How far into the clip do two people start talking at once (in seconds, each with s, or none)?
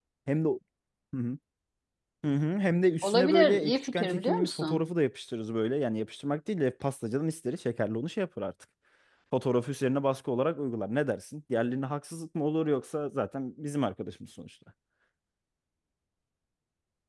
3.0 s